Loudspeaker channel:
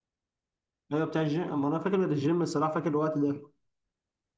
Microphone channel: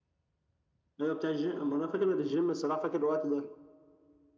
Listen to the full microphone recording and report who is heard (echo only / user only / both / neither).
echo only